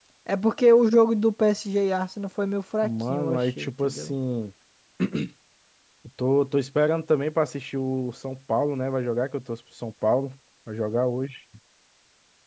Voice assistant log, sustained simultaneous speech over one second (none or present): present